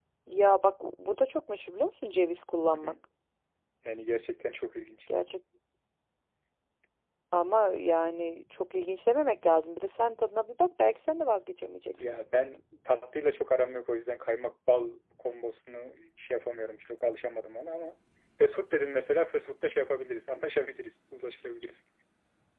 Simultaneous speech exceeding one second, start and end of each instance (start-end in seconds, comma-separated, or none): none